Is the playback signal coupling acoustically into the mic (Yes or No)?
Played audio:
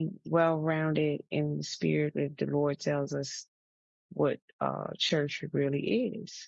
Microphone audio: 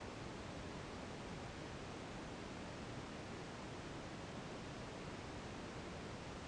No